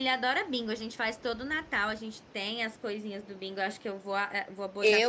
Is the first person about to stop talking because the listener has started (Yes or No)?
Yes